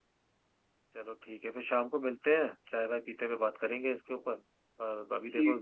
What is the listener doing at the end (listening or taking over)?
listening